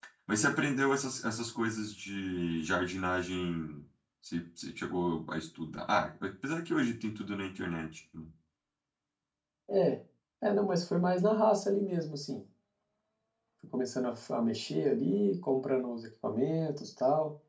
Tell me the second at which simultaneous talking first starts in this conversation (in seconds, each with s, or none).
none